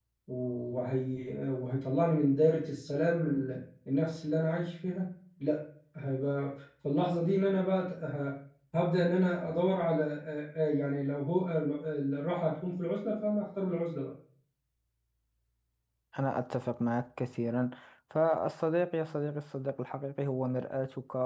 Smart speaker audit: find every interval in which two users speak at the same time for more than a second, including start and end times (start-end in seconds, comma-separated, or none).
none